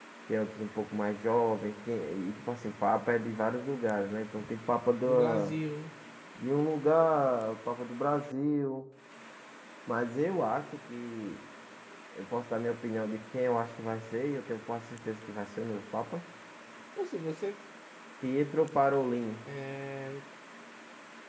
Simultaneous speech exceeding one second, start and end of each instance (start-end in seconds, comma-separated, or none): none